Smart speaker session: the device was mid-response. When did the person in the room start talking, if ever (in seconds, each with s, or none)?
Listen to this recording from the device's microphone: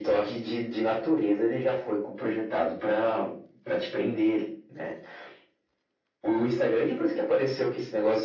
none